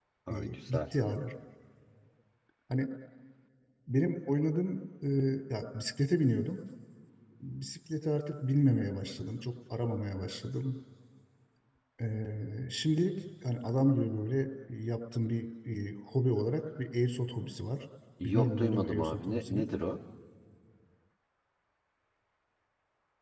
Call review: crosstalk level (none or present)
present